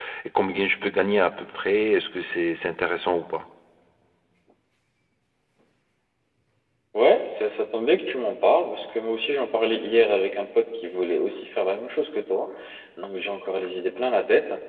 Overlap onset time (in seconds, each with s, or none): none